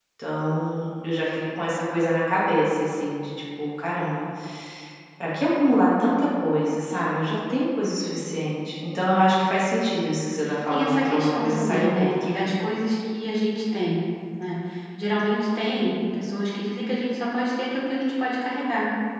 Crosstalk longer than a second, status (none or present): present